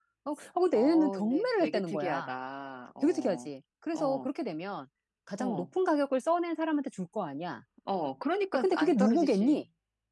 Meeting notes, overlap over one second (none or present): present